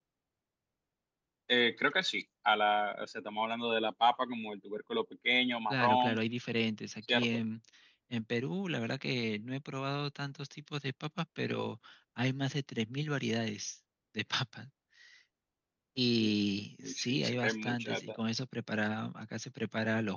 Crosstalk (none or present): present